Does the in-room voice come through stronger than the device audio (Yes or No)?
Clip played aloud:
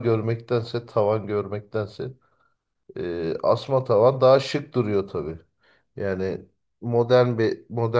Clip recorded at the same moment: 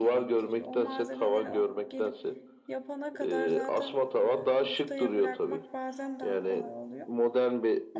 No